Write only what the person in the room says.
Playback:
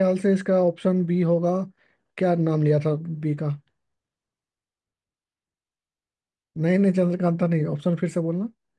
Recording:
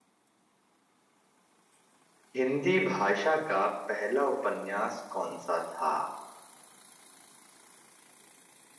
हिंदी भाषा का पहला उपन्यास कौन सा था

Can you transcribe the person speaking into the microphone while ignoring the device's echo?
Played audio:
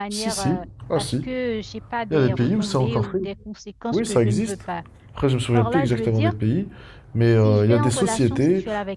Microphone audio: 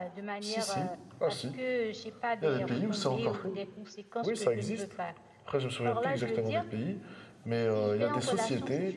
none

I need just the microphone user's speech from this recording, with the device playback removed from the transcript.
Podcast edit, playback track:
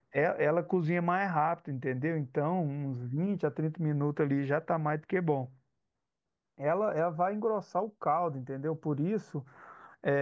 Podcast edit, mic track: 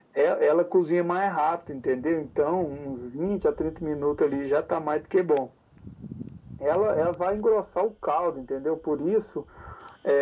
none

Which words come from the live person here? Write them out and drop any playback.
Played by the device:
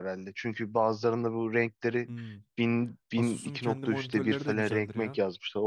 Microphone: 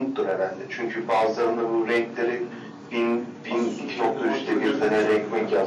none

